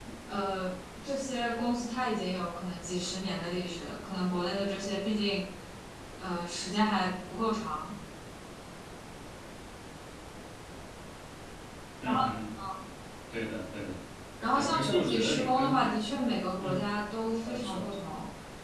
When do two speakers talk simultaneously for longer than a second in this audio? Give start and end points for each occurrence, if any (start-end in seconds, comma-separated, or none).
14.5-15.8